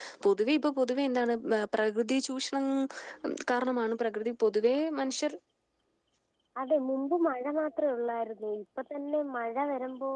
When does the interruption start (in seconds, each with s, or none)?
none